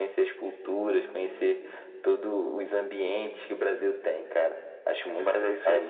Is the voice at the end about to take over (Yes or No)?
Yes